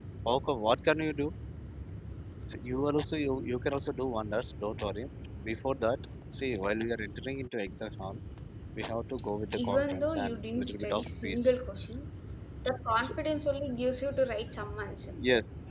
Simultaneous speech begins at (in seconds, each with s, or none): 9.6 s